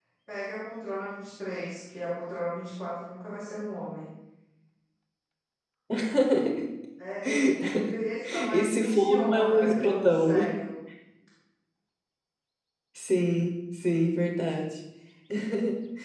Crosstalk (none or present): present